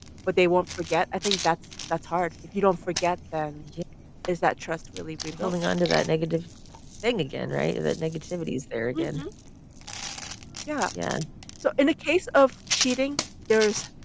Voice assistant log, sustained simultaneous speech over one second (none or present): none